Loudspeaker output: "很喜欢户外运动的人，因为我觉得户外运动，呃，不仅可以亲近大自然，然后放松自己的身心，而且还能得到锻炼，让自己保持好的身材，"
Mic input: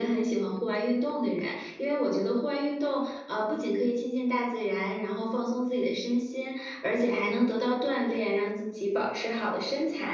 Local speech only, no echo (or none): none